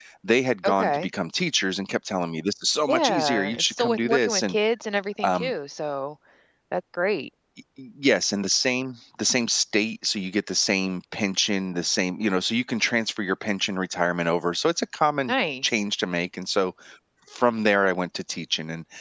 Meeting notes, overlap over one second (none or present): present